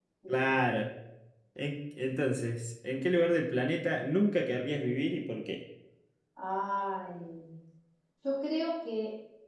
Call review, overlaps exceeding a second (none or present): none